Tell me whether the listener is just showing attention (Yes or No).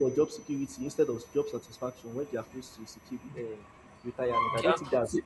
No